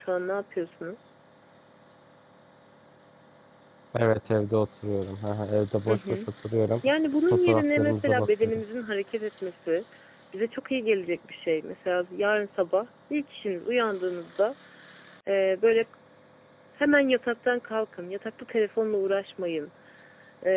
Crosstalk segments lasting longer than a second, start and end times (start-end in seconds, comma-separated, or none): 7.3-8.6